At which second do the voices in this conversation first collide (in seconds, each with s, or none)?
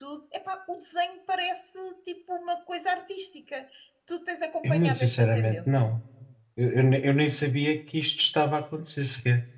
4.6 s